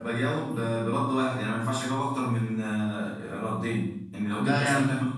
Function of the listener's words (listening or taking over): listening